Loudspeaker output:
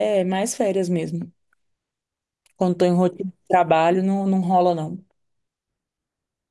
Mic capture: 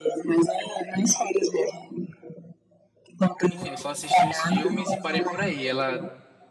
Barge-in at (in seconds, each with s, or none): 3.5 s